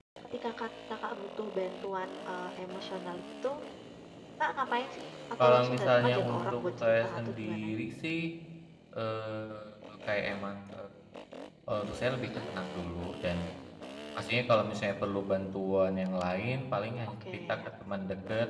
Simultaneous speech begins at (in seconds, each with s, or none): 5.4 s